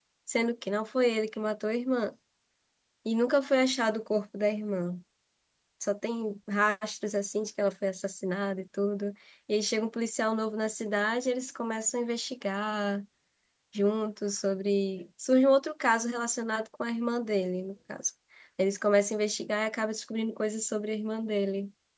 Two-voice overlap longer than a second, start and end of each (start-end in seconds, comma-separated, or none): none